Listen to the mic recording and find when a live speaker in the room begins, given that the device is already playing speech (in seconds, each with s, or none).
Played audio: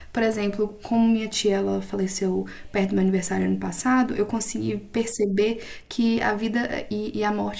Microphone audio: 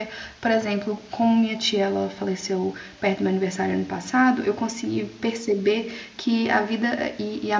none